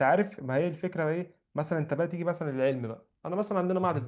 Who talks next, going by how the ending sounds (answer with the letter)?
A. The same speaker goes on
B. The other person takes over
A